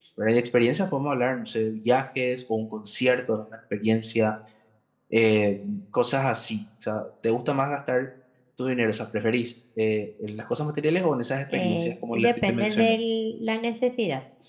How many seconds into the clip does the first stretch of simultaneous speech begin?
11.5 s

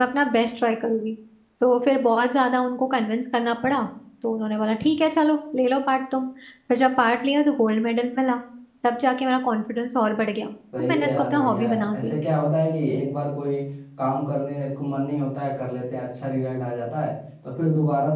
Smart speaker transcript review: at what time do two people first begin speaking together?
10.7 s

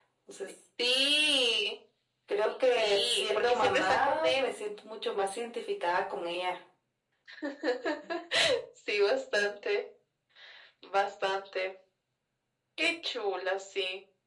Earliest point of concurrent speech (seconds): 2.8 s

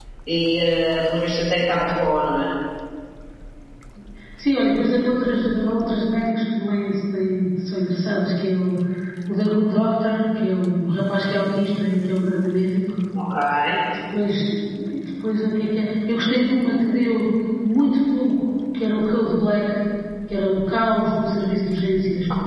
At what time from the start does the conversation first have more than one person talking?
none

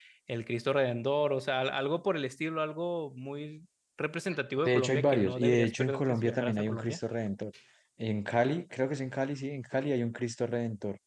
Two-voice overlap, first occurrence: 4.7 s

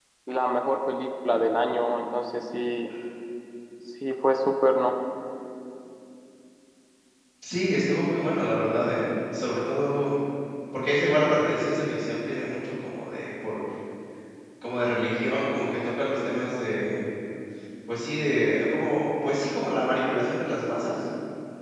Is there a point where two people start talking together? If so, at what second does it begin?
none

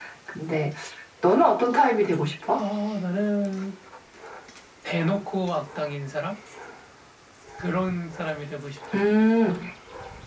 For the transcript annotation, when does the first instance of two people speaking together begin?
none

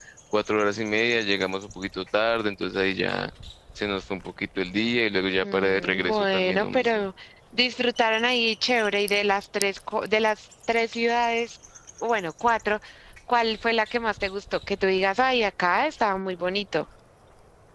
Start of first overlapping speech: 5.4 s

